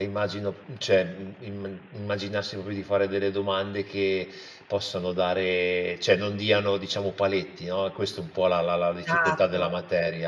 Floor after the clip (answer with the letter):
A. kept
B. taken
B